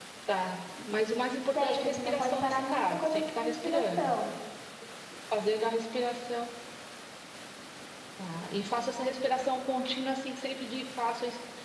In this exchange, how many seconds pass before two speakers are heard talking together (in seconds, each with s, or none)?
1.6 s